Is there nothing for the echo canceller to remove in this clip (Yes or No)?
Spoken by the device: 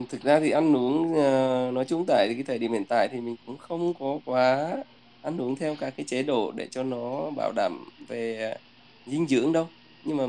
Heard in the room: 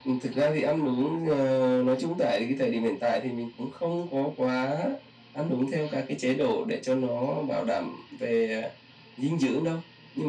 No